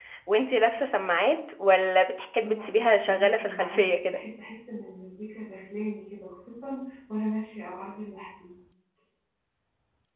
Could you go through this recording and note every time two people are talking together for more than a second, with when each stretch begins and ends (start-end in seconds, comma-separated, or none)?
2.4-4.2